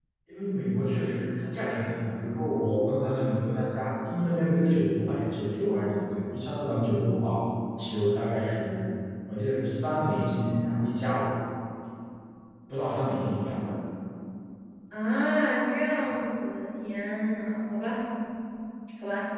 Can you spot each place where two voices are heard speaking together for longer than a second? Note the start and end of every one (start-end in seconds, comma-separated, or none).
none